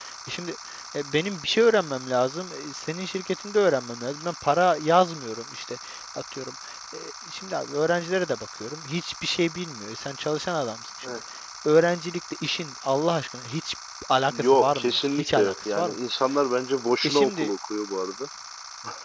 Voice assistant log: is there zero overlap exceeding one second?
No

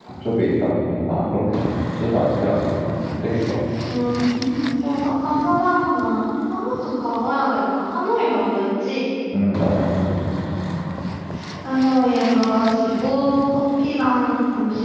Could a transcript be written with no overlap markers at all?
Yes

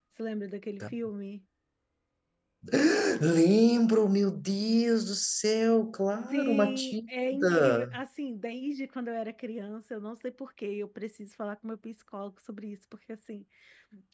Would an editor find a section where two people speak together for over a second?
Yes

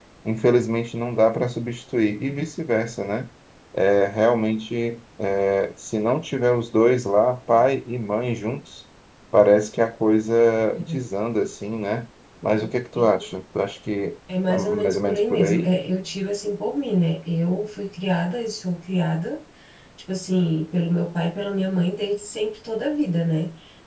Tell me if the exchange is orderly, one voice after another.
No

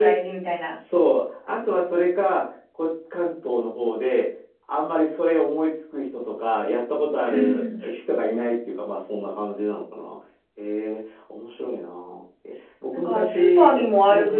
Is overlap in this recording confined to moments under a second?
No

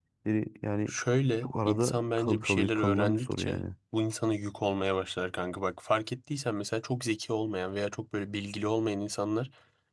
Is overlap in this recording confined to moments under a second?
No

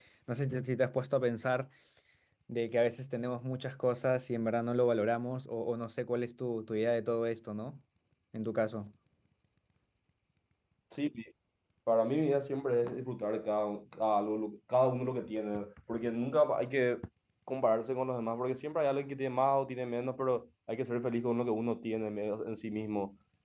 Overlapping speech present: No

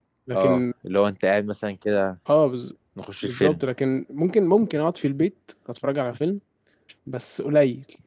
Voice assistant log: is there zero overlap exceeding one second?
Yes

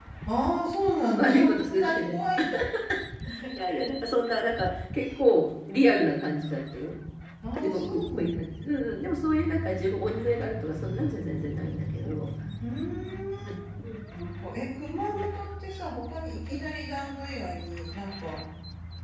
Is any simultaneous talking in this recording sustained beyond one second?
Yes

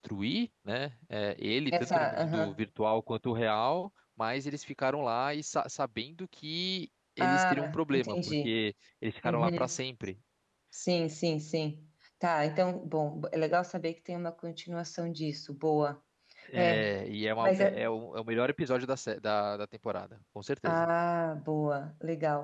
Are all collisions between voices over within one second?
No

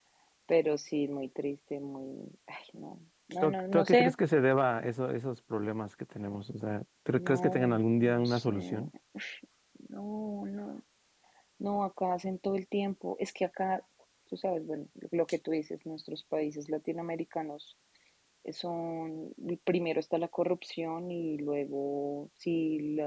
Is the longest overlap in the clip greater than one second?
Yes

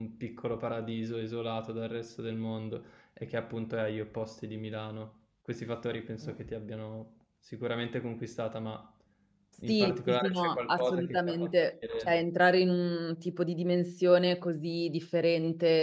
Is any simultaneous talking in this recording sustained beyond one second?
Yes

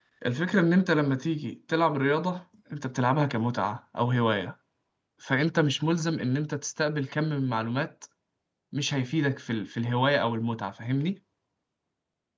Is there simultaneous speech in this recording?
No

